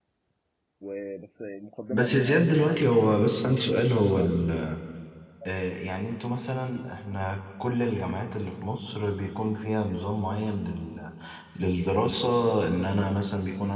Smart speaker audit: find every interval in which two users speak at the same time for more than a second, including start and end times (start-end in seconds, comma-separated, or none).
1.9-3.2